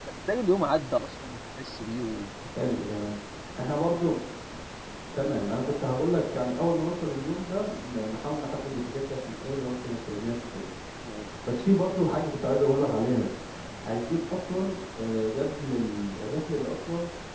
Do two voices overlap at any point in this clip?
No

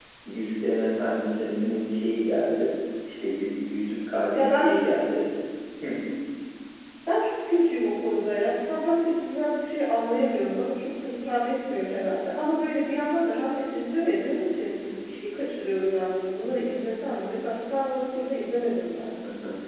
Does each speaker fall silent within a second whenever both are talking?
Yes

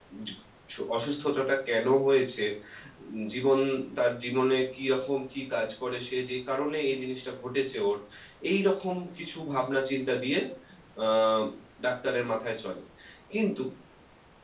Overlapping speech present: No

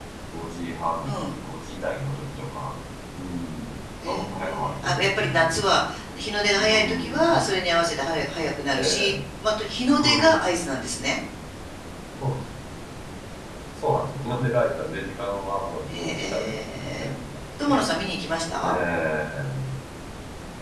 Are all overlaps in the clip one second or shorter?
No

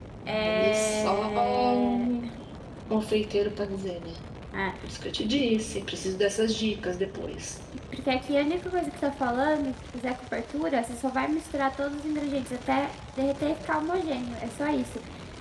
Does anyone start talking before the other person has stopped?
Yes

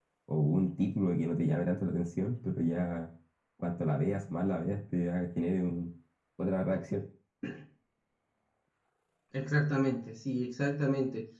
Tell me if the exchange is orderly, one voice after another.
Yes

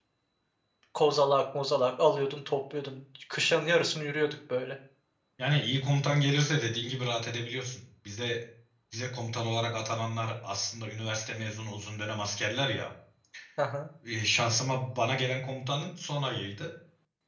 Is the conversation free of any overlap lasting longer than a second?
Yes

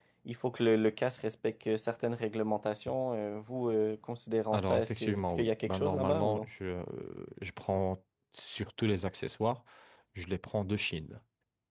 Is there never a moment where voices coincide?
No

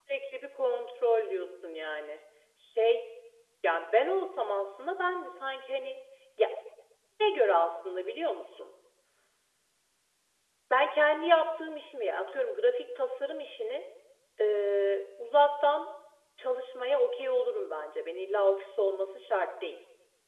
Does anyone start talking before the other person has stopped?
No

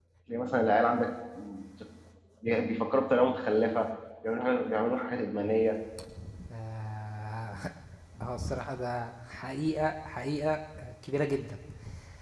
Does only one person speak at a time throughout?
Yes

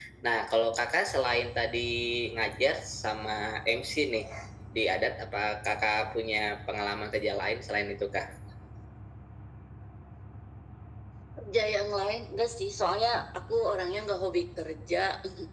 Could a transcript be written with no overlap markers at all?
Yes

